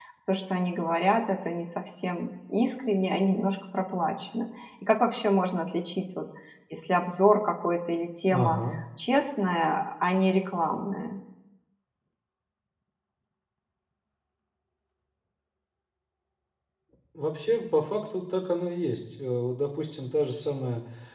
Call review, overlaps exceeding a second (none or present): none